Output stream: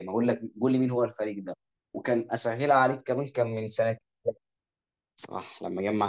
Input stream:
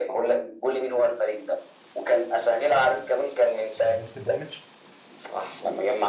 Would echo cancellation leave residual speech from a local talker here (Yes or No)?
Yes